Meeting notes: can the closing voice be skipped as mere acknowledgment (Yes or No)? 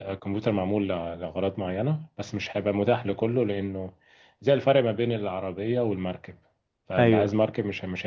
Yes